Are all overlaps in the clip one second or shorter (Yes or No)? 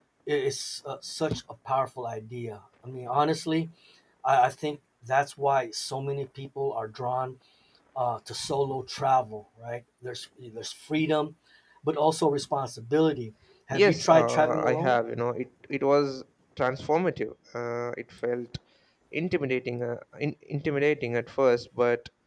No